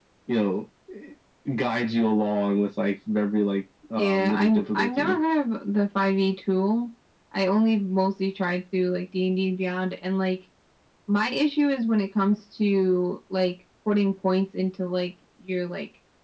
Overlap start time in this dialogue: 4 s

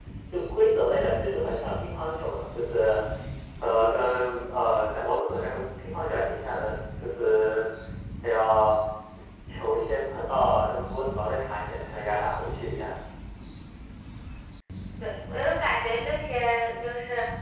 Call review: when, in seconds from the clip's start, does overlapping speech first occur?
none

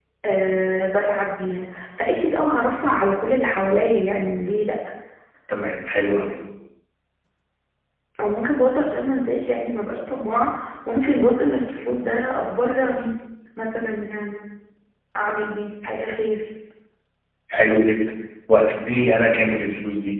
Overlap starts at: none

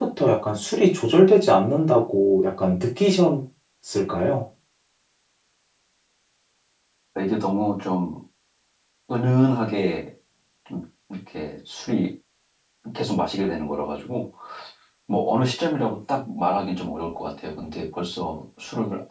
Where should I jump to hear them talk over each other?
none

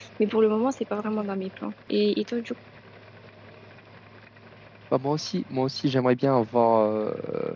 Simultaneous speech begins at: none

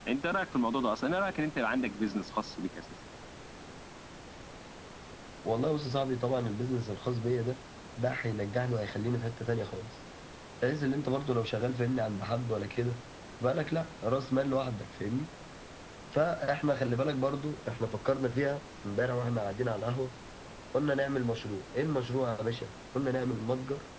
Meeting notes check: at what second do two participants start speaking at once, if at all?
none

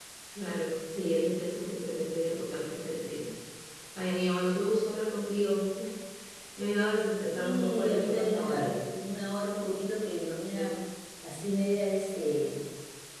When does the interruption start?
7 s

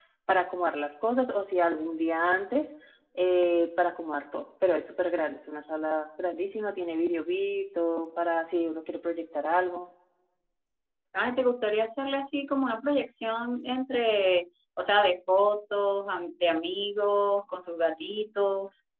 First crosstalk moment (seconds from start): none

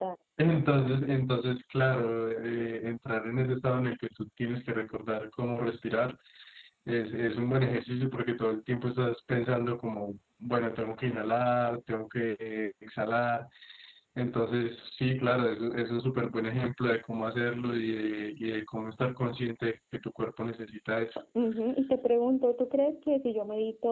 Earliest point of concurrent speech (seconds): none

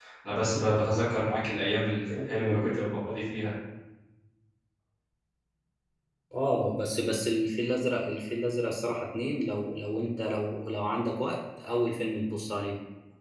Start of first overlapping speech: none

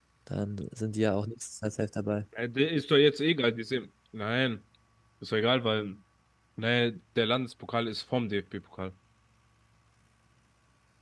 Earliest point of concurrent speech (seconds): none

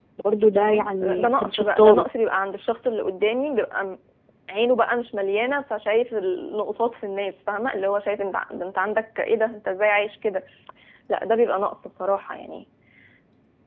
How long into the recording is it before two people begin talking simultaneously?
1 s

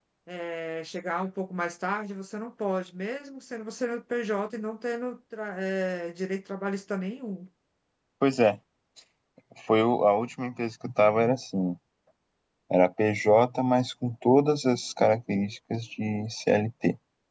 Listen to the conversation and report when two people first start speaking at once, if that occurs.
none

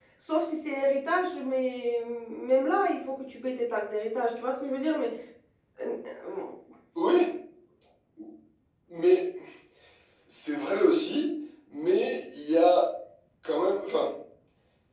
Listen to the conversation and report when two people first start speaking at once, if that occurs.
none

